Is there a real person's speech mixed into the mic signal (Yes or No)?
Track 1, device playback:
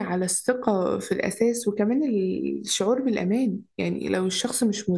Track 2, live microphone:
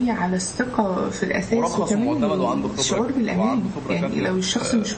Yes